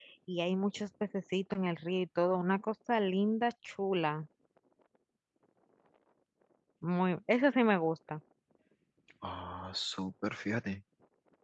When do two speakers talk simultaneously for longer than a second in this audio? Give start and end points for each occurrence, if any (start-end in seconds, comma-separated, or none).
none